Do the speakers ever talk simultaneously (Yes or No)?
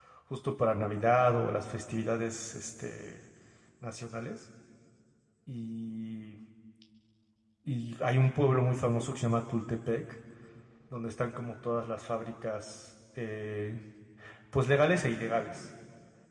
No